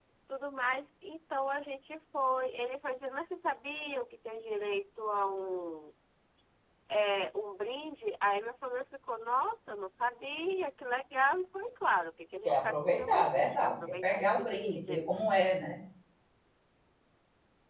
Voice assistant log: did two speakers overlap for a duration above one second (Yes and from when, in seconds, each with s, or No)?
Yes, from 12.4 s